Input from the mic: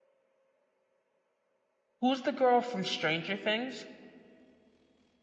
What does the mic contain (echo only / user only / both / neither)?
user only